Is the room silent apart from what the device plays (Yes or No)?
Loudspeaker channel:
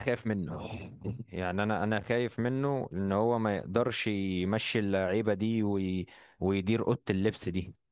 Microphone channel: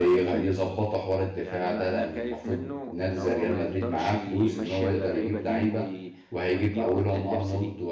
No